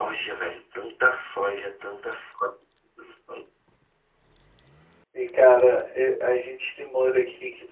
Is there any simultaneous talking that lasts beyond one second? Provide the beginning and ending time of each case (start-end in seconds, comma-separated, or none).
none